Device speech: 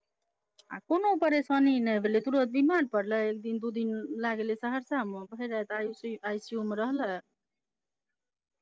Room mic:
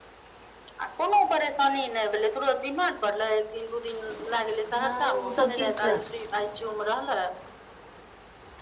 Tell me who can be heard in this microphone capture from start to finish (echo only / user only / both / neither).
both